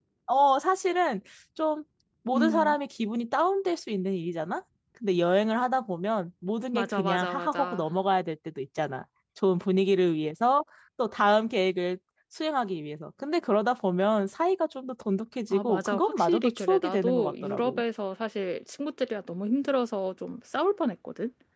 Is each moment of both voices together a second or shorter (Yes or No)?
No